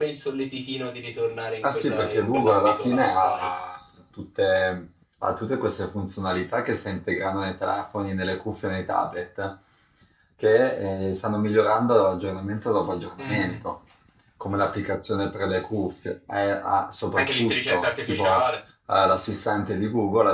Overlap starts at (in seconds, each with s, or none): 1.6 s